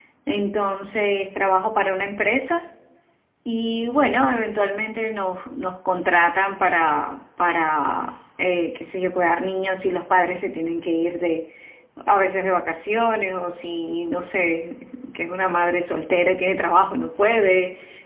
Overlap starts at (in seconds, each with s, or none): none